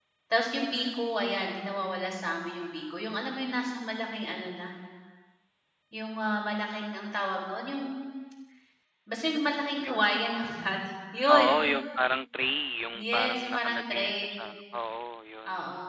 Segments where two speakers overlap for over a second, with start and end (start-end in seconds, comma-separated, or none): 12.9-14.4